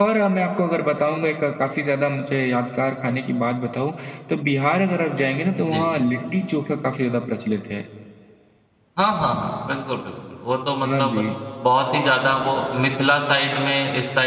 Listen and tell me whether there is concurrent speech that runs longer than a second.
No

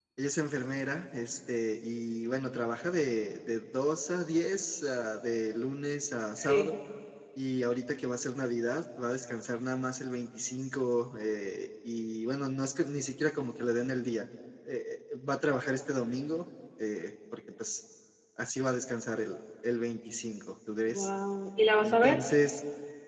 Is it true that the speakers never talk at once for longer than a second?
Yes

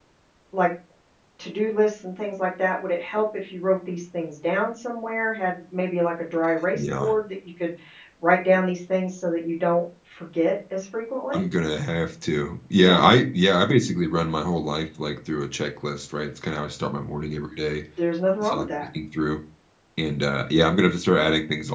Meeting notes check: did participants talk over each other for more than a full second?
No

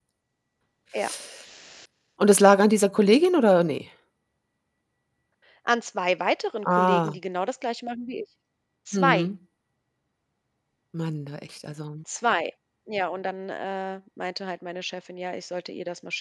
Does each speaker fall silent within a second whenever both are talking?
Yes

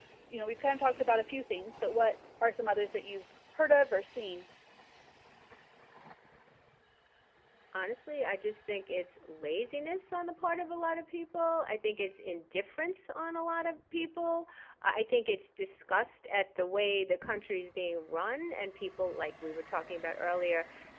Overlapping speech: No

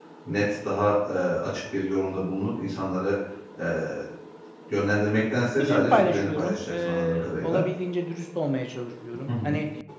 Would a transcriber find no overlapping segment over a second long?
No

